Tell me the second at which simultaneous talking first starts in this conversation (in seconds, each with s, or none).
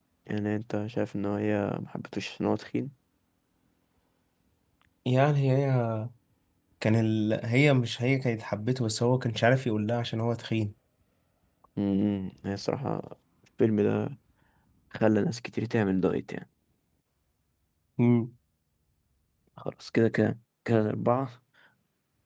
none